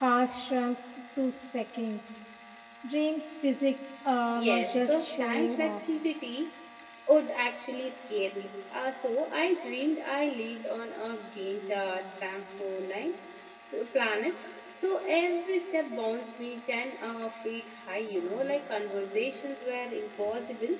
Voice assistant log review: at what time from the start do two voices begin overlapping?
4.3 s

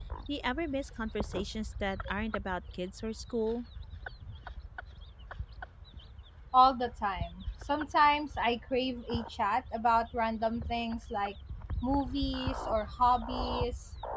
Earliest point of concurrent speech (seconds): none

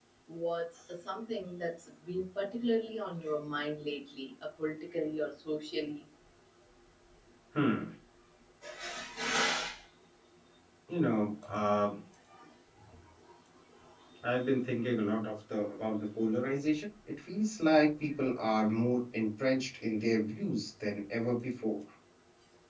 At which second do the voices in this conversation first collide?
none

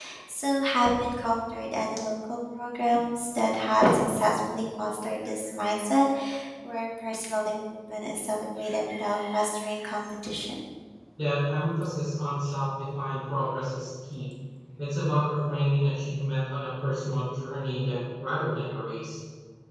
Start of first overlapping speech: none

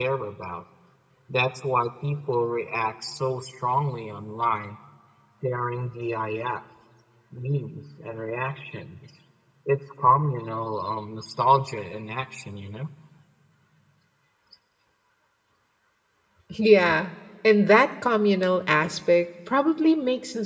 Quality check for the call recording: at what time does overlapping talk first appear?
none

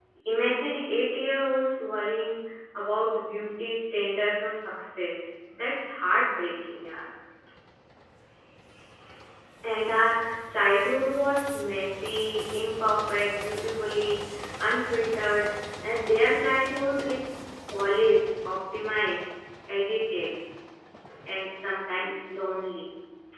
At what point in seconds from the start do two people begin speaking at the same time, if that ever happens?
none

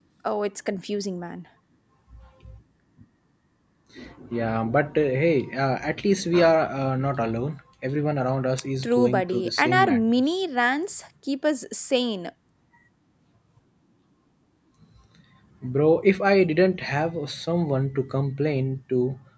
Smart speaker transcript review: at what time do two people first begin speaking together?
8.8 s

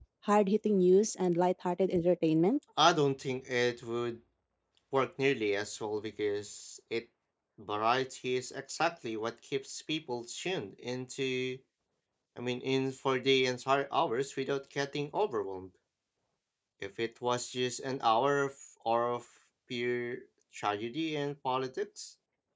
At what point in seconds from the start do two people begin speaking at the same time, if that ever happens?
none

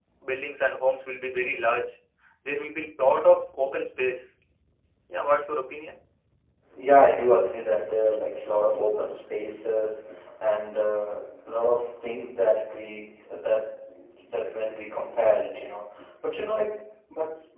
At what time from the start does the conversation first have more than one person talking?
none

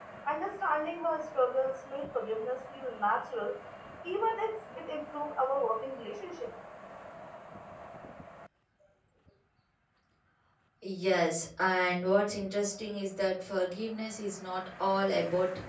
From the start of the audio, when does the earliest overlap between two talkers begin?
none

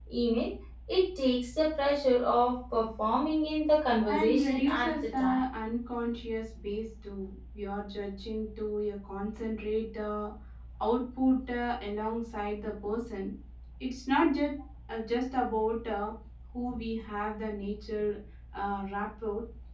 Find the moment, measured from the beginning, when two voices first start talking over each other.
4.0 s

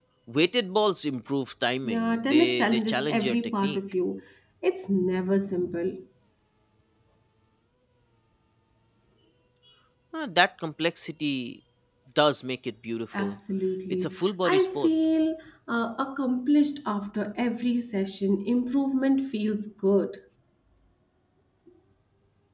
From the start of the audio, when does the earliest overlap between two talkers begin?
1.8 s

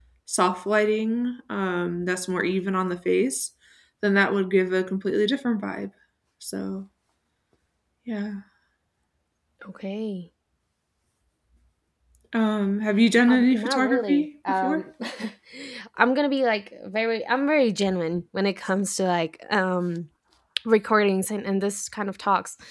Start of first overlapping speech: 13.3 s

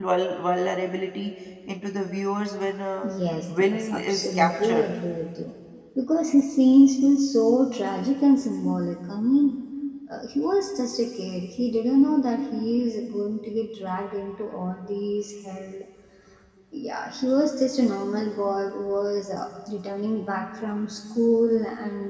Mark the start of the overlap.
3.6 s

